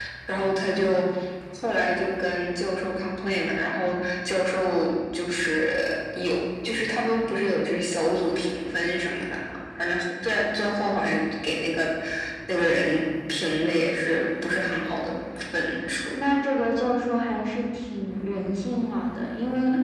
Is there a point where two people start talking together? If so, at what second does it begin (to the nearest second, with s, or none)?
none